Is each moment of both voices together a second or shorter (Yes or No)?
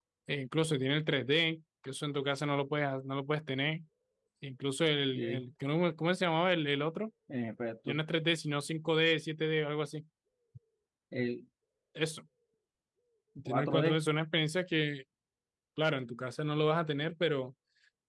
Yes